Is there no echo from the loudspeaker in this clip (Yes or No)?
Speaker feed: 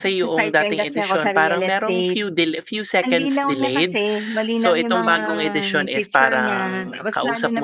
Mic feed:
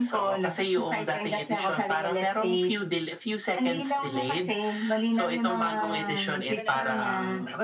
No